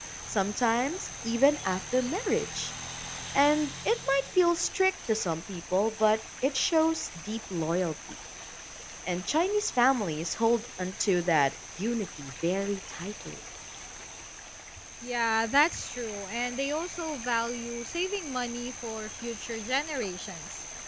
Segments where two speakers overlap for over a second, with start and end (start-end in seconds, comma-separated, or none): none